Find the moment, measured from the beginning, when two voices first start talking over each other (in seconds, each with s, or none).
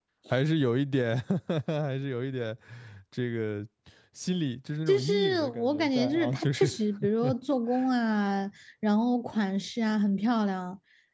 4.9 s